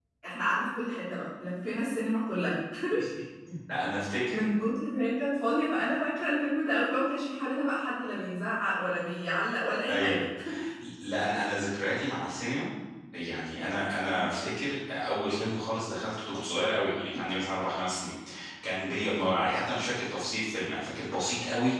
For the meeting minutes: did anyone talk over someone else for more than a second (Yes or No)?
No